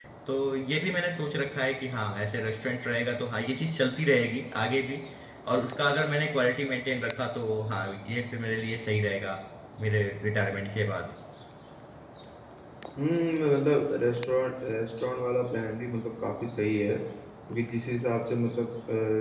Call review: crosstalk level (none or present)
none